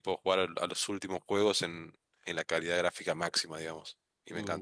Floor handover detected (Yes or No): Yes